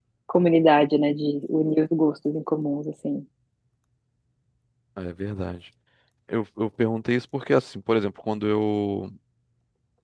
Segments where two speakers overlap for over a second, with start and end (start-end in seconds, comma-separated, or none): none